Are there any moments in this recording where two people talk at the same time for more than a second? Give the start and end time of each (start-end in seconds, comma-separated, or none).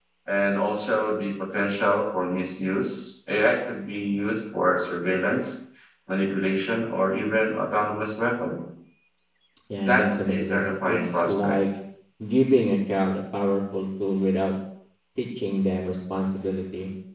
9.9-11.6